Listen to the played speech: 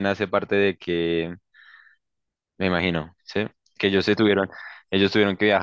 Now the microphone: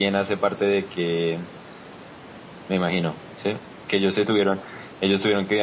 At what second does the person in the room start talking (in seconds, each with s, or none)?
none